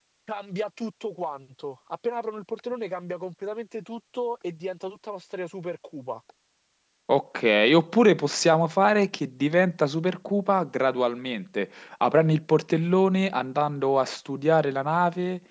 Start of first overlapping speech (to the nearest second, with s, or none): none